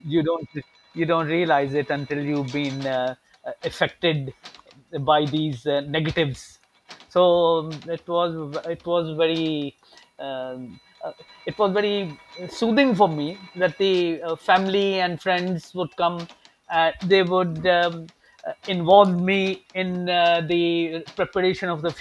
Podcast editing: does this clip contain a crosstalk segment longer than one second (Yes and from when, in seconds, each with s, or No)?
No